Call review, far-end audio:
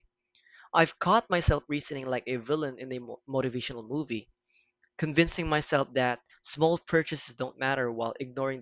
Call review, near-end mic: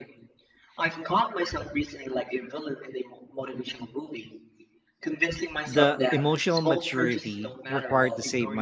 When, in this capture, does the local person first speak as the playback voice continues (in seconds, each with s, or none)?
5.7 s